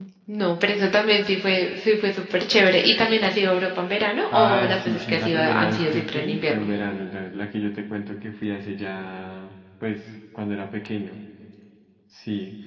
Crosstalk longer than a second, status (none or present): present